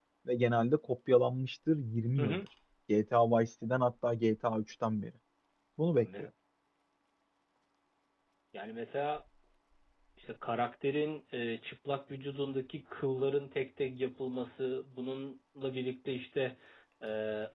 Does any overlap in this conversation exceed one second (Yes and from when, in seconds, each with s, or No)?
No